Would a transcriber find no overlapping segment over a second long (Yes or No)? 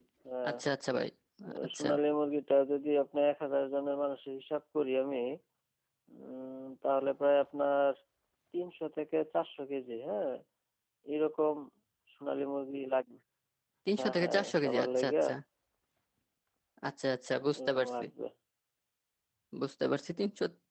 No